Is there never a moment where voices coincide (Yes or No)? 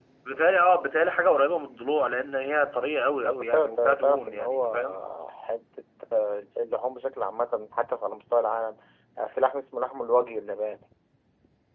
No